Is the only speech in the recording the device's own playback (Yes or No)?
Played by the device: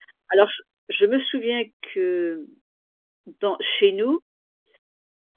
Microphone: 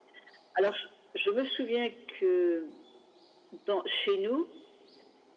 Yes